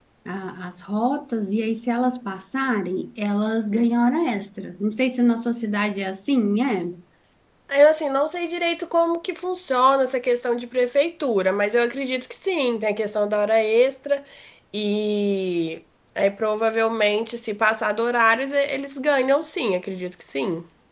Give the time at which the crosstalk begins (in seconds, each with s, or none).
none